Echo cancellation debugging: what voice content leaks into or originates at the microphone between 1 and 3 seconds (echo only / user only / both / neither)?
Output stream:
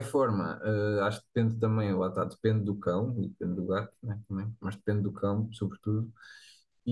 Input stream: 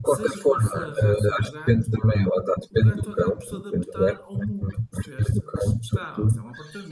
both